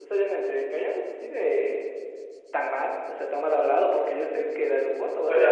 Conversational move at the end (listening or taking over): taking over